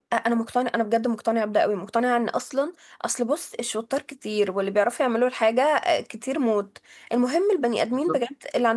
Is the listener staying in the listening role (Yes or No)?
Yes